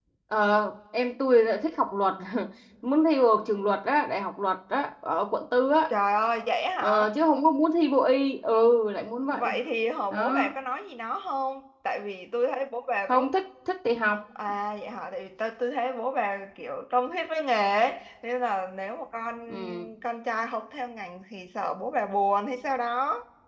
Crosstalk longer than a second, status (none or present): none